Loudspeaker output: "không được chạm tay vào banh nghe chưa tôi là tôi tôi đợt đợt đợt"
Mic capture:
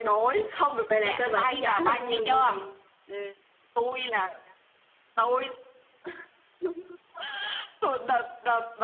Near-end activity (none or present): present